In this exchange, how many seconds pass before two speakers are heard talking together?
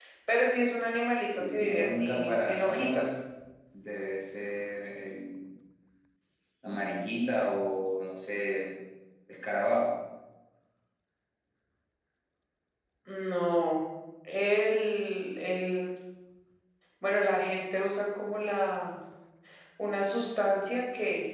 1.3 s

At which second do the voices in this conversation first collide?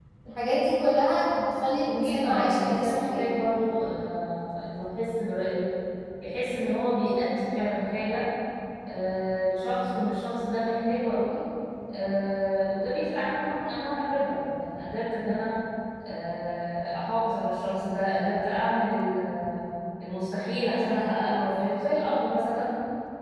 1.9 s

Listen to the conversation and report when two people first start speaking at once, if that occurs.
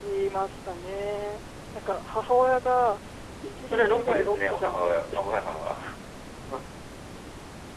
3.6 s

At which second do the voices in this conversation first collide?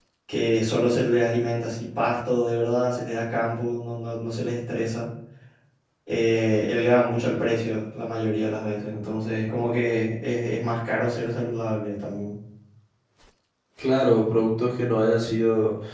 none

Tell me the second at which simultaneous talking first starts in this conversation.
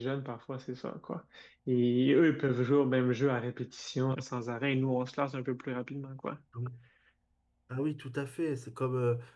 none

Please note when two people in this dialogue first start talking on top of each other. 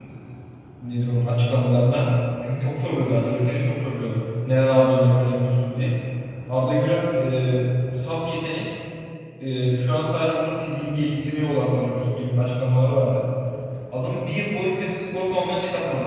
none

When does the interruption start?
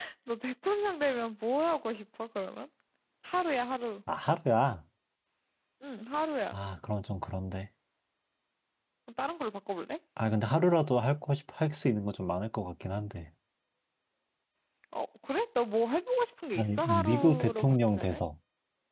16.6 s

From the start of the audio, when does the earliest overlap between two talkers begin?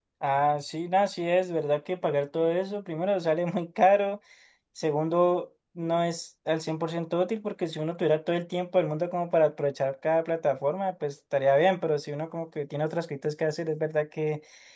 none

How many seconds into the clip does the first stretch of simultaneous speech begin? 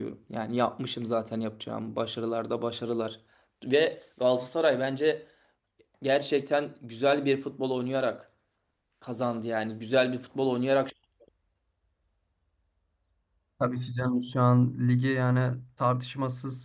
none

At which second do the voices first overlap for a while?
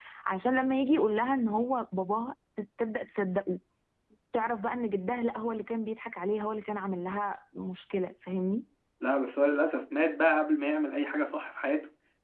none

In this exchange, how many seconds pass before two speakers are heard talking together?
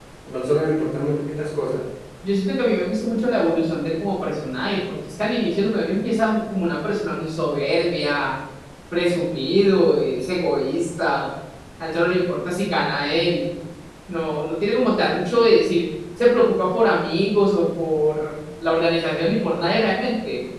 none

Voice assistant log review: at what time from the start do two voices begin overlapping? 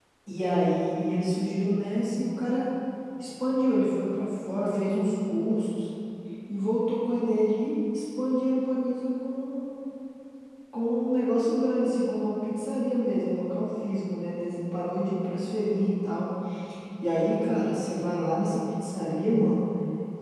none

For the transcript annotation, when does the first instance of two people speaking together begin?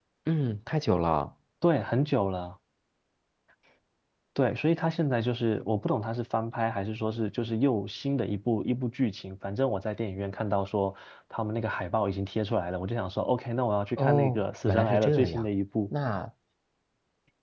14.0 s

